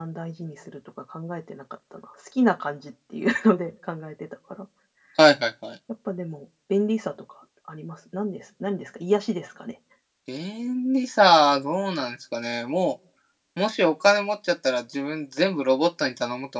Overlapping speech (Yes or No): No